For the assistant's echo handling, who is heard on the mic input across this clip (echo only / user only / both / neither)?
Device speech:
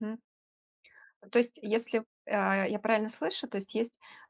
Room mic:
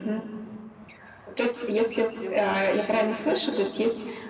both